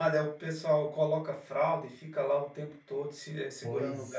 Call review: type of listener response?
taking over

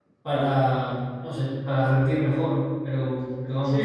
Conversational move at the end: taking over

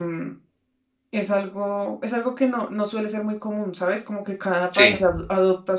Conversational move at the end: listening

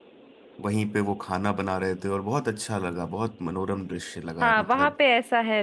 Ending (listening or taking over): taking over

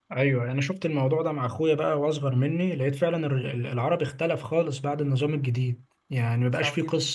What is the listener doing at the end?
listening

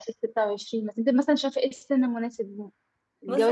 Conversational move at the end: taking over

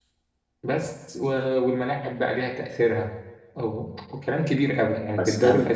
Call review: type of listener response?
listening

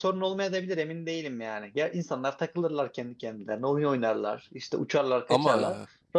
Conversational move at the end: listening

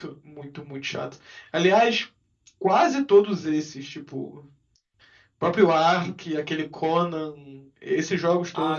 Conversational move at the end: taking over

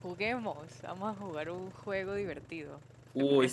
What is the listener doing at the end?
taking over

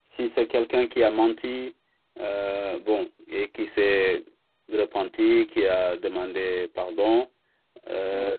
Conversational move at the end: listening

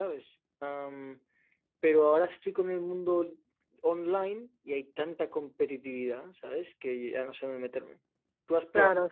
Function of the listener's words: taking over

